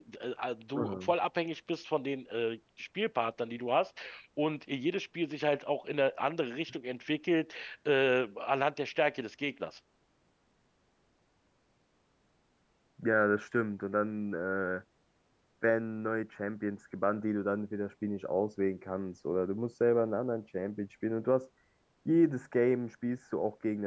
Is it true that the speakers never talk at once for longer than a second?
Yes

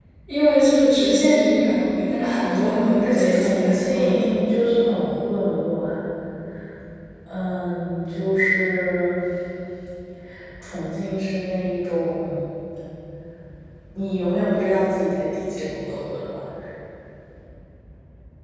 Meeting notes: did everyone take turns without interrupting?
No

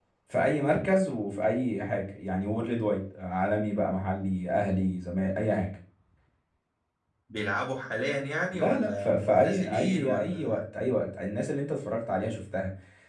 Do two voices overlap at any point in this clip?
Yes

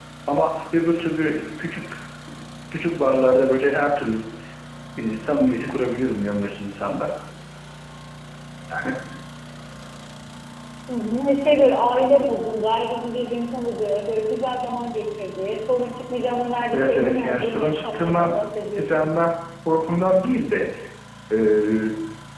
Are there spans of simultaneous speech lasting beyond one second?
Yes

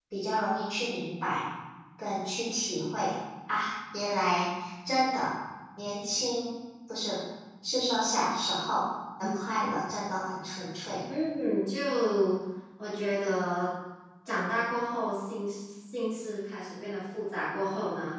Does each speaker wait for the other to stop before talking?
Yes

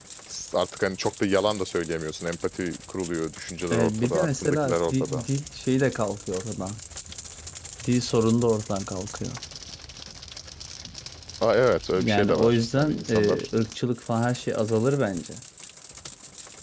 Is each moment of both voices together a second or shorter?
No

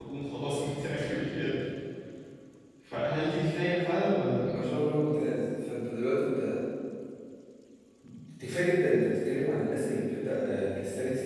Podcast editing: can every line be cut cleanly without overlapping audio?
Yes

